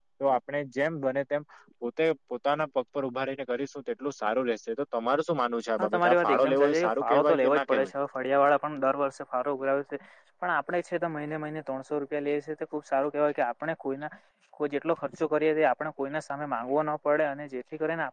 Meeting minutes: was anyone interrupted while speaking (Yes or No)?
Yes